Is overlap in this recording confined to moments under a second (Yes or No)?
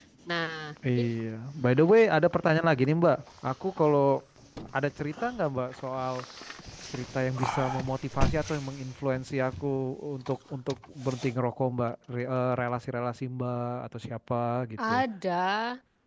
Yes